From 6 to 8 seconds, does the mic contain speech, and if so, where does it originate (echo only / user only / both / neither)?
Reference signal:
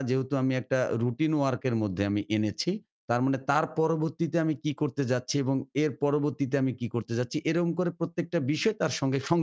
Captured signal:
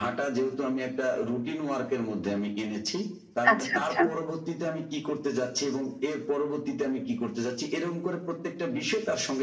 echo only